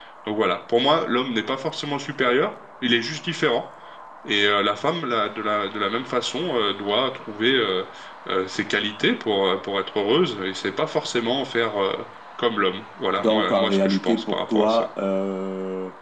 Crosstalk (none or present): present